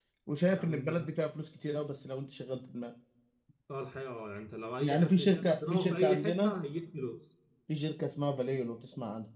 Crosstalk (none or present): present